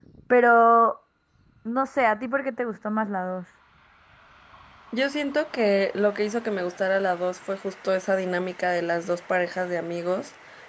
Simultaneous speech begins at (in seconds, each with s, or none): none